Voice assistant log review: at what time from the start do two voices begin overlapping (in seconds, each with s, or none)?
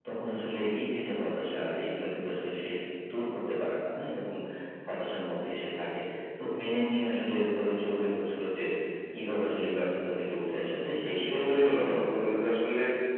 11.1 s